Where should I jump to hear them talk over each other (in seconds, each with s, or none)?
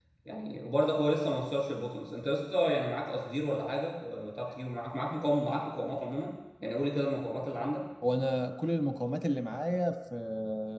none